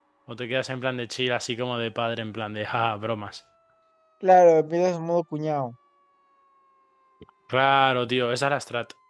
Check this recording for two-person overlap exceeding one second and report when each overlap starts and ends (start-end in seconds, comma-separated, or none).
none